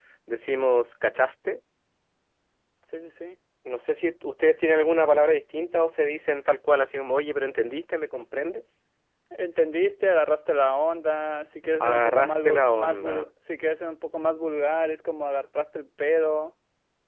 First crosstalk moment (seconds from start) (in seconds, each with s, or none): 11.8 s